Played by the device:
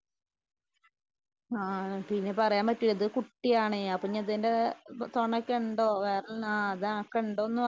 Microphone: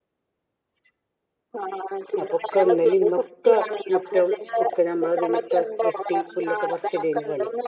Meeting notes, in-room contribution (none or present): present